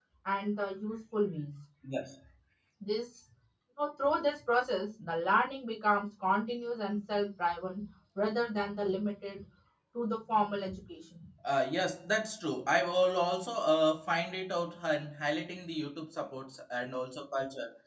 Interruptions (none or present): none